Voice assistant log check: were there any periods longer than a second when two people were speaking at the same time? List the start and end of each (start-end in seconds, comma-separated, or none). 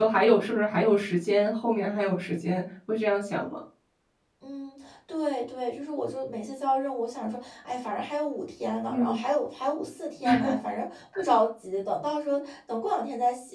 none